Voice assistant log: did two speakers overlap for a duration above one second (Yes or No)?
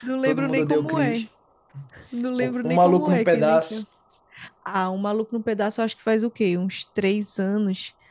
Yes